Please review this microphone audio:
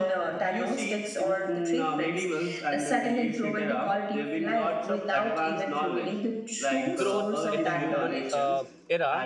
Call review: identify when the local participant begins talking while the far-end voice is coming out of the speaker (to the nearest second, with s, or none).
7 s